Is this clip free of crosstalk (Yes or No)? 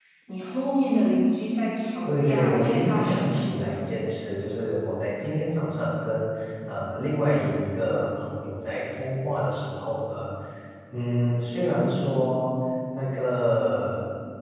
No